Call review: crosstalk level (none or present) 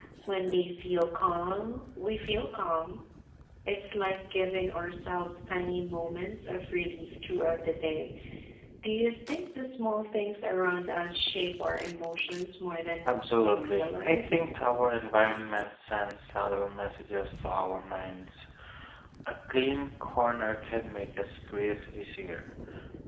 present